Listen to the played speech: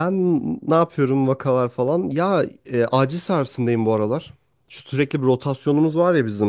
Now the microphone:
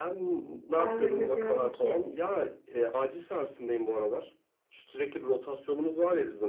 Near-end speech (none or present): present